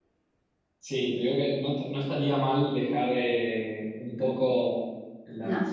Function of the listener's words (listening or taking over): listening